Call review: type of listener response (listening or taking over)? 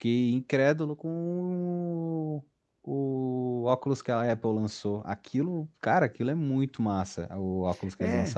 taking over